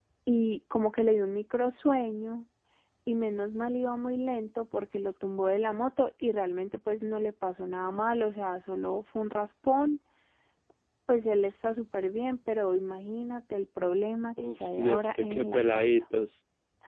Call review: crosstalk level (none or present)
present